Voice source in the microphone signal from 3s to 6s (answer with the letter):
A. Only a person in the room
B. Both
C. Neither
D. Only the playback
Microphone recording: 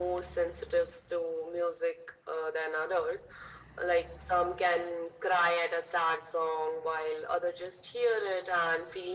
D